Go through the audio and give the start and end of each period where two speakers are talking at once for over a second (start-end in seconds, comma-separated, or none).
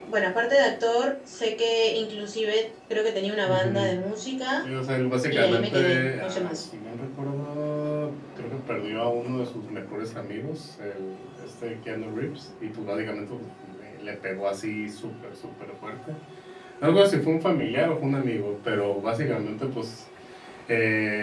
5.3-6.5